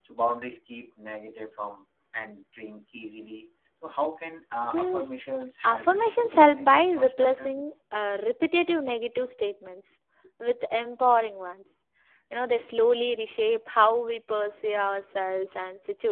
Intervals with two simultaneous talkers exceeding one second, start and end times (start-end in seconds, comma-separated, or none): 5.6-7.6